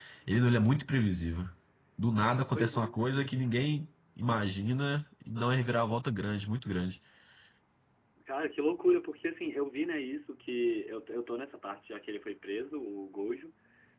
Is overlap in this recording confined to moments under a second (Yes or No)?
Yes